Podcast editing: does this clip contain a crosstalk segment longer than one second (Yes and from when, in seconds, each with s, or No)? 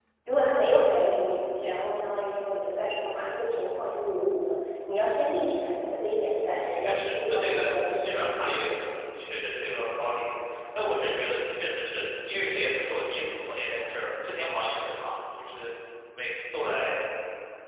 Yes, from 6.7 s